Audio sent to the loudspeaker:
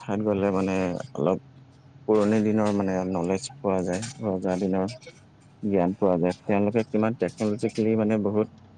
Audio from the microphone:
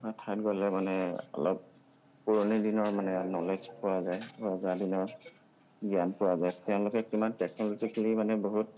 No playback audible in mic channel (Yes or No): No